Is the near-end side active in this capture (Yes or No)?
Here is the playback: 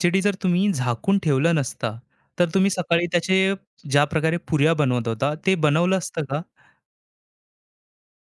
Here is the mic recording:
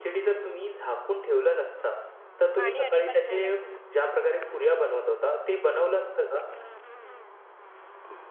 Yes